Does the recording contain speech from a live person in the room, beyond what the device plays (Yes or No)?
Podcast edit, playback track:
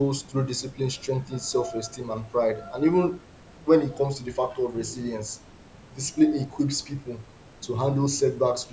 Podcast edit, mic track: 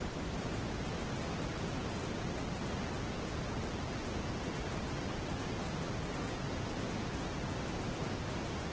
No